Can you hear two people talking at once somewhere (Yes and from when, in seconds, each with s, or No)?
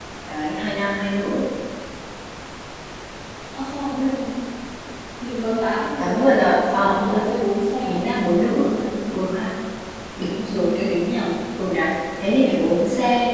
Yes, from 6.0 s